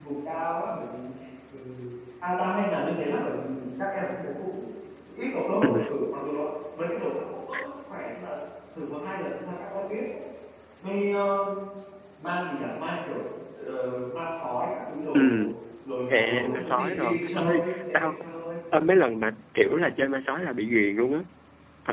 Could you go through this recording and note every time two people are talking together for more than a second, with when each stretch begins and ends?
16.1-18.1

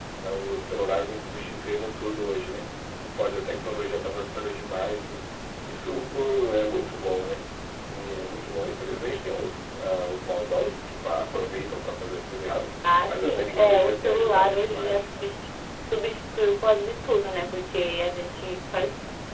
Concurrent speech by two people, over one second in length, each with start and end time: 13.1-15.3

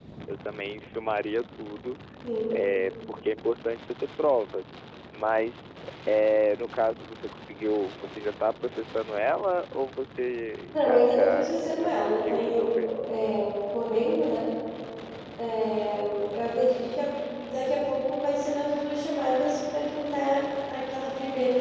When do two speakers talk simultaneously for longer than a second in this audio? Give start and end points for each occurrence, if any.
10.7-12.9

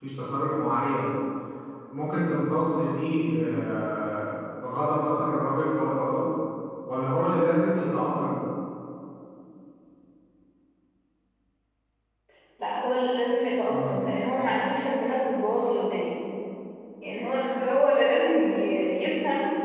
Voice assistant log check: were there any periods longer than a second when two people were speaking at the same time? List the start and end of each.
none

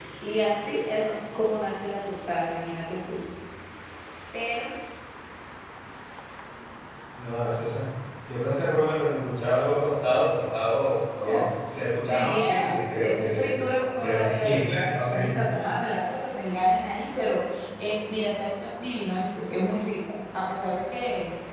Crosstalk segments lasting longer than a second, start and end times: 12.1-13.5, 14.0-15.4

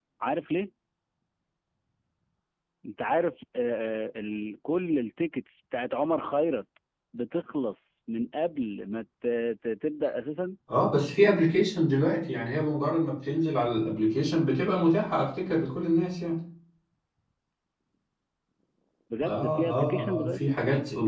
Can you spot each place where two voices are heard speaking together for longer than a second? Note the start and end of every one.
19.2-20.6

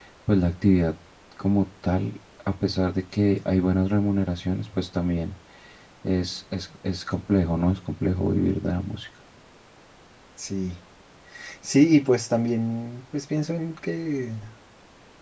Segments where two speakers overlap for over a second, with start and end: none

